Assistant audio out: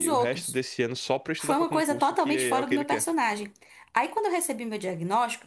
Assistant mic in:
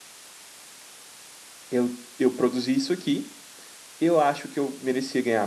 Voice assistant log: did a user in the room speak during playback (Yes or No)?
Yes